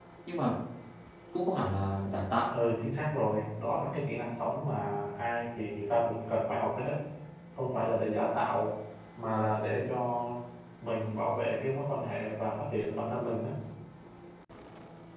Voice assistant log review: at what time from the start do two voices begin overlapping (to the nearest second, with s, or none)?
none